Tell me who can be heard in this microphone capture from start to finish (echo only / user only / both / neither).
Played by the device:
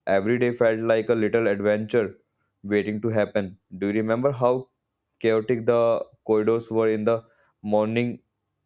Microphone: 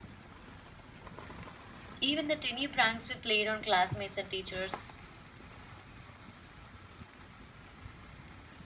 user only